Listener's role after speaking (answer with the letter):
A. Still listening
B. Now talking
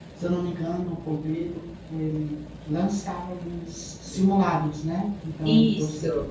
A